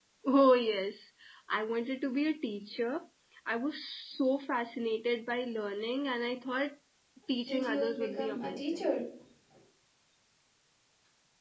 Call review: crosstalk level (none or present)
present